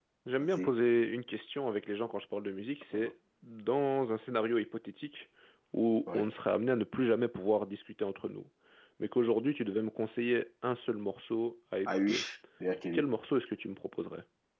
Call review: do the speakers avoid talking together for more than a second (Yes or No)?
Yes